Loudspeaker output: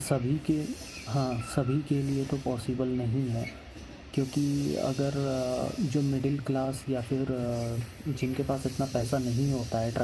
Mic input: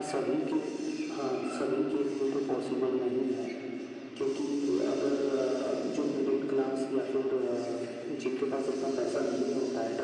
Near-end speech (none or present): none